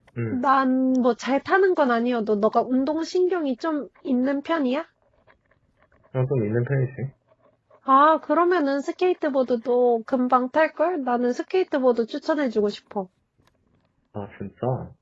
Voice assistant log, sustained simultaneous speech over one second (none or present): none